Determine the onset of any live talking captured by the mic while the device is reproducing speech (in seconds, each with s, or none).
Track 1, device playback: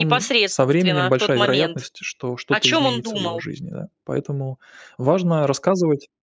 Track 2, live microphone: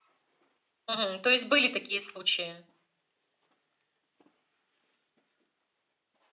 0.9 s